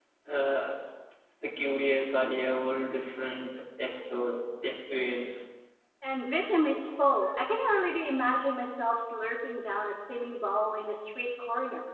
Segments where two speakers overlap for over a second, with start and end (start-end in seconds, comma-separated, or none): none